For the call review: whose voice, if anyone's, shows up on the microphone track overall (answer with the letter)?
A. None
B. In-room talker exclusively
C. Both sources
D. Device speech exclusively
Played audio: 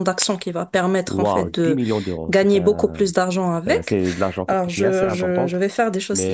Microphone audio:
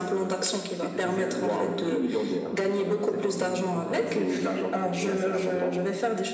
C